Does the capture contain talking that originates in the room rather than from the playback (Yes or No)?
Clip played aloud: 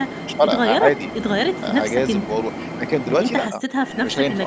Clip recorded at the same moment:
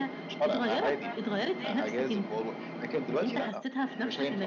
Yes